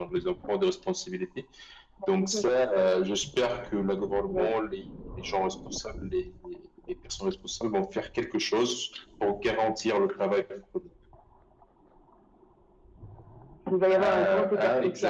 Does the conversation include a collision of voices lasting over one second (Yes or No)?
Yes